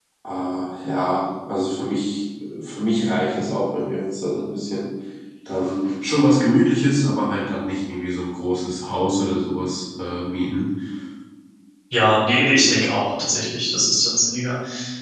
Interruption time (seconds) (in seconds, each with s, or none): none